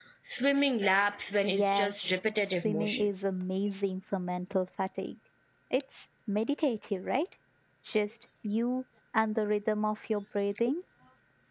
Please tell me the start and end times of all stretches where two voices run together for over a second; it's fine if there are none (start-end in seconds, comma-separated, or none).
1.4-3.1